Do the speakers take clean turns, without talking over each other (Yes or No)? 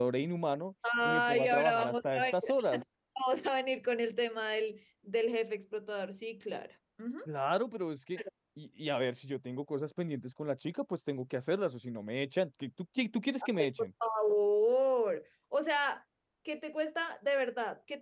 No